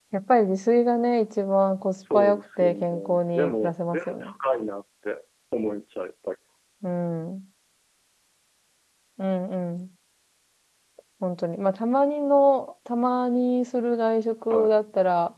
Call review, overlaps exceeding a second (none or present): present